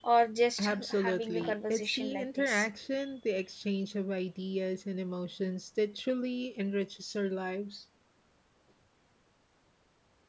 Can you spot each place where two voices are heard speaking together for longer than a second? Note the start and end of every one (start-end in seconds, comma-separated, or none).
0.6-2.7